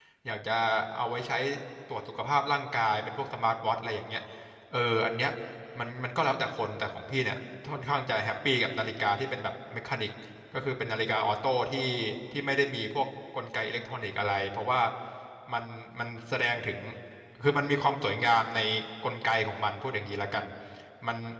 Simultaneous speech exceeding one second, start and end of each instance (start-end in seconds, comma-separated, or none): none